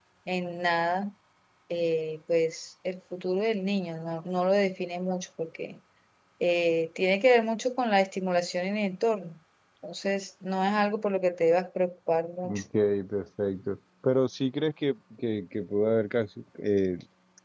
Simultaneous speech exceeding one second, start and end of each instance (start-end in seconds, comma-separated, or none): none